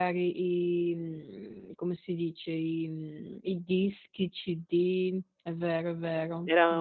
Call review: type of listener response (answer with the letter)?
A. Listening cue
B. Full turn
B